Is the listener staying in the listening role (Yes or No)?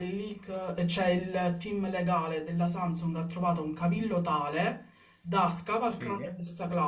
Yes